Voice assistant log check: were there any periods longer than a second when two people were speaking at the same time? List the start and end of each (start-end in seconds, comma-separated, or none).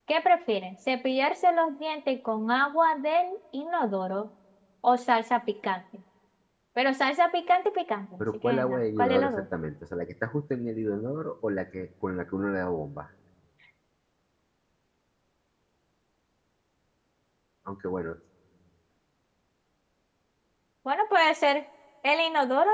8.2-9.4